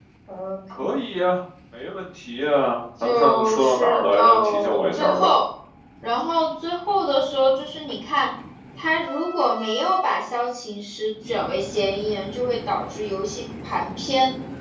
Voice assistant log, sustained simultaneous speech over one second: present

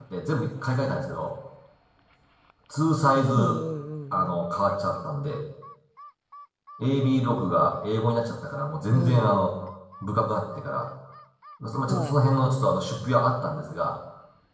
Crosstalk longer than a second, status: none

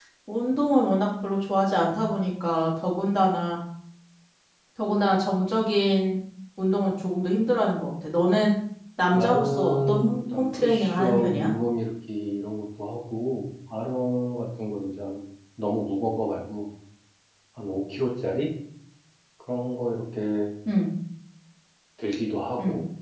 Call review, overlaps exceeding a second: present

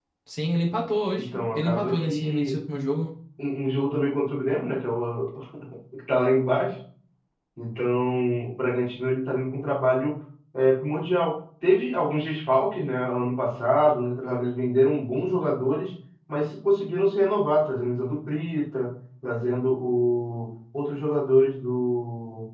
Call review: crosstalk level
present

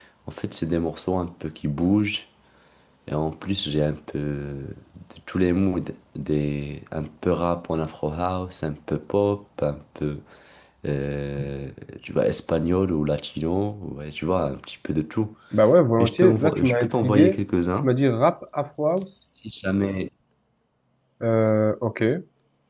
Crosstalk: present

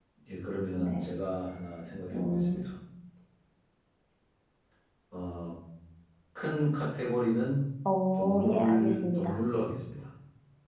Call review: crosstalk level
present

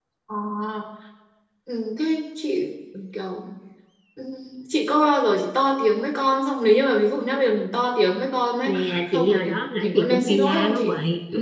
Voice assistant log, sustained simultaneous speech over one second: present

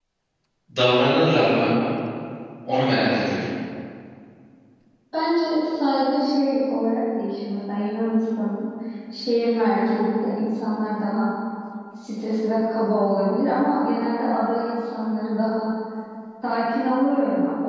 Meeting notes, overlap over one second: none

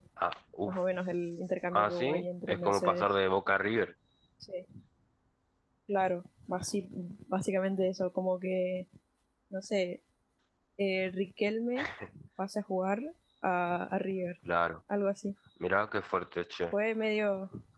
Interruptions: present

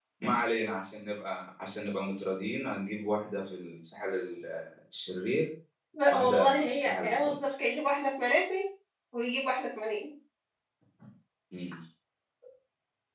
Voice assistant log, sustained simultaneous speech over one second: present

